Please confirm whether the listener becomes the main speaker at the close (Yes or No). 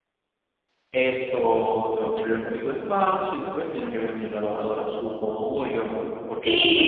Yes